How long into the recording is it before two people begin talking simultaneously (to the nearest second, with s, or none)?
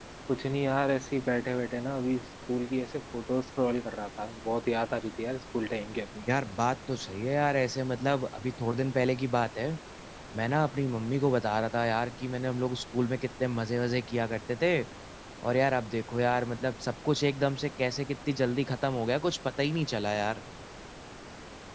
none